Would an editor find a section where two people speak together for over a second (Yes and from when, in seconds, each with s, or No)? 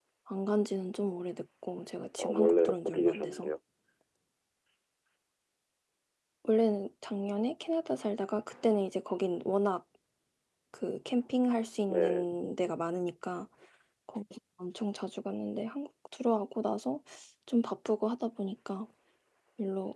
Yes, from 2.2 s